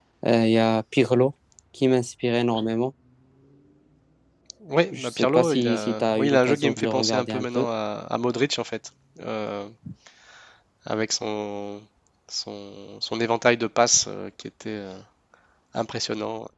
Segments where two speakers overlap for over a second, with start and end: 4.9-7.7

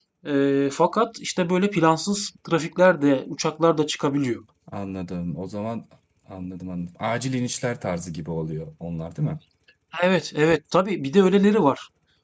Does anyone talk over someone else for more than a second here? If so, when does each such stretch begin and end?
none

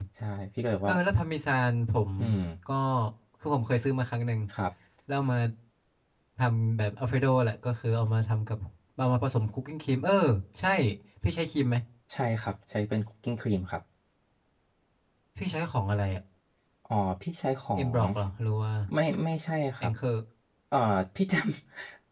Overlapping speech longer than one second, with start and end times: none

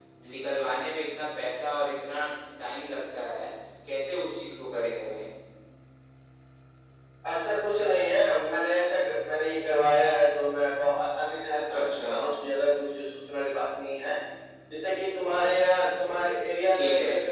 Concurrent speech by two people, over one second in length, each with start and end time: none

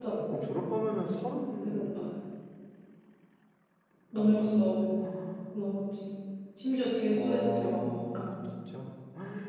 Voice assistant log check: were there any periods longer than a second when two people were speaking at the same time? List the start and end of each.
7.1-8.3

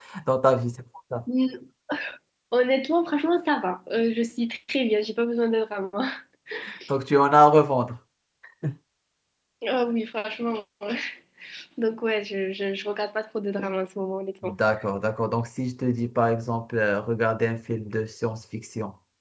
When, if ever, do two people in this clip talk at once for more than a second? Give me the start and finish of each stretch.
none

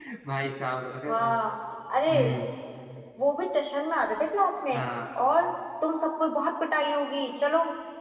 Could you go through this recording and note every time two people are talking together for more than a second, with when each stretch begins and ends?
none

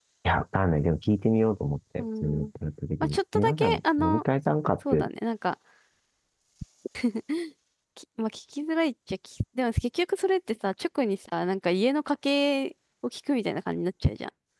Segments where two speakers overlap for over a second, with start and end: 3.0-4.2

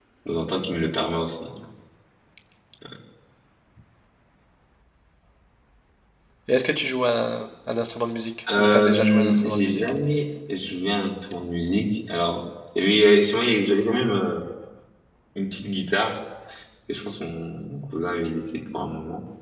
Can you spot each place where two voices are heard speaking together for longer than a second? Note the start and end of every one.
8.5-9.9

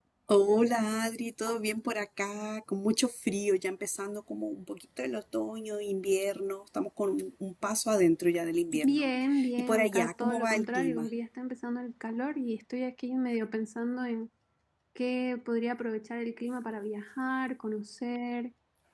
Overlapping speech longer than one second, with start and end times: 9.6-11.1

